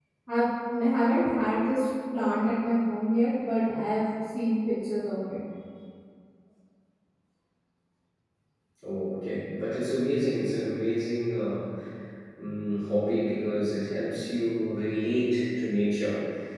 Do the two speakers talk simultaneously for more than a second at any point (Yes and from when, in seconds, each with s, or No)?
No